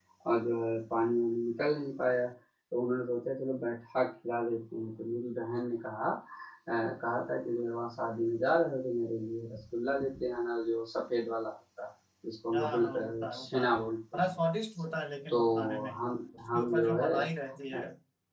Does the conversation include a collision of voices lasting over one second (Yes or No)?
Yes